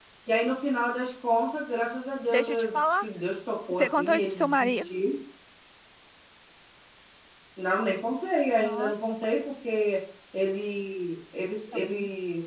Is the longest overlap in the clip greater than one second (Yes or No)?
Yes